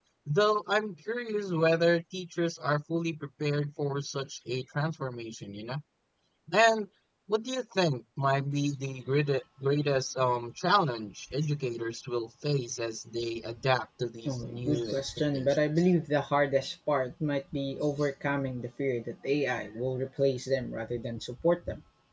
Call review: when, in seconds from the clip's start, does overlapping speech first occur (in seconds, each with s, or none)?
14.2 s